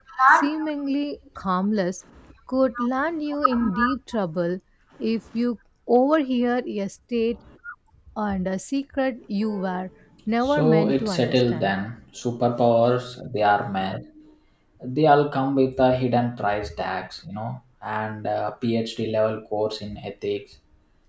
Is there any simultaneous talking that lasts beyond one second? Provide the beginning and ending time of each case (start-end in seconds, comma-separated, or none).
10.4-11.7